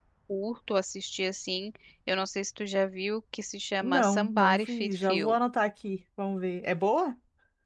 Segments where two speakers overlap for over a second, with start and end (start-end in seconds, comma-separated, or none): 3.8-5.3